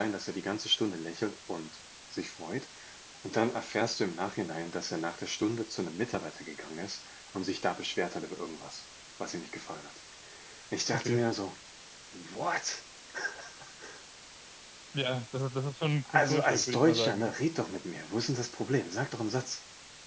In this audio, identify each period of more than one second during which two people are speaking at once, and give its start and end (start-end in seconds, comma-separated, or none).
16.1-17.3